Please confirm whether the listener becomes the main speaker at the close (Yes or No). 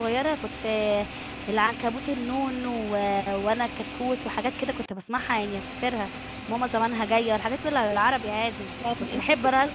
Yes